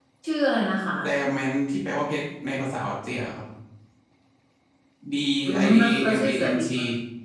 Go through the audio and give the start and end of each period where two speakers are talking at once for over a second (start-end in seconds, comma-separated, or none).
5.5-6.7